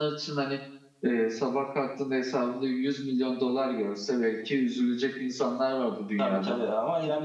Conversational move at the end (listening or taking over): taking over